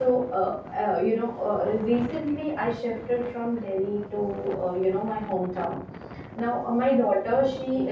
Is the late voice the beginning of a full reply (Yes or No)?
No